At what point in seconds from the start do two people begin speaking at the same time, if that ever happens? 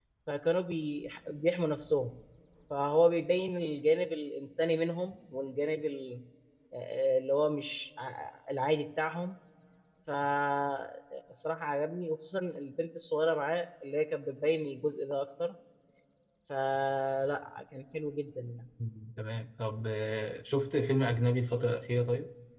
none

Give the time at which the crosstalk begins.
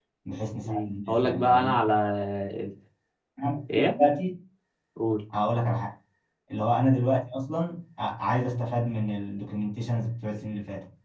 0.6 s

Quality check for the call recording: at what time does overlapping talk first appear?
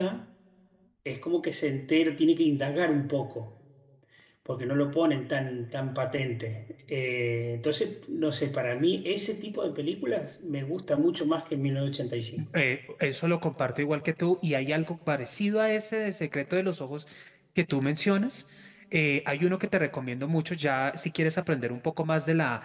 none

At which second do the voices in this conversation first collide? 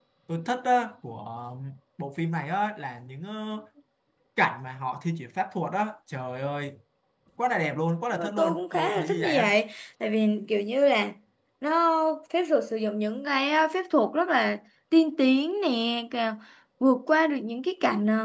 8.1 s

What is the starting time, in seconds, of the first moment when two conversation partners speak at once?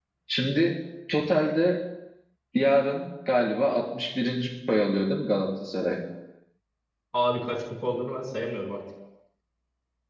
none

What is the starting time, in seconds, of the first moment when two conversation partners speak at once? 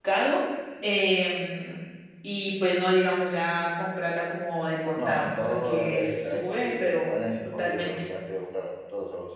5.0 s

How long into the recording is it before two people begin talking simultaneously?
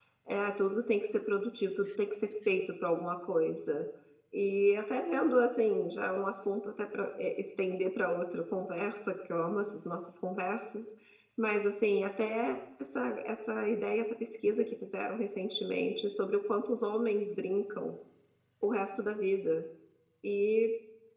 none

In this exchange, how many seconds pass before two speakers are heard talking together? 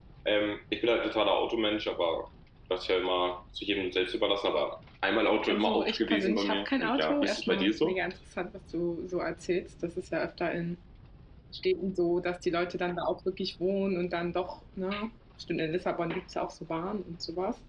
5.5 s

